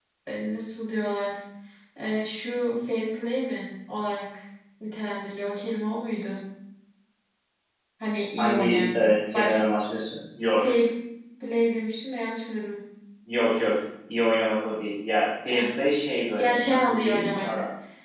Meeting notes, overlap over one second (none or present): present